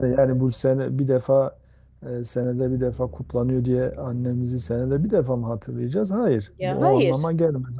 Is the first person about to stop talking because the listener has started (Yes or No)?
No